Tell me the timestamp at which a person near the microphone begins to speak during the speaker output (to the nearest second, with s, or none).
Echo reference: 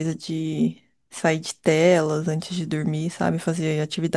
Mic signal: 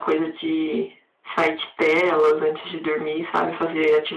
none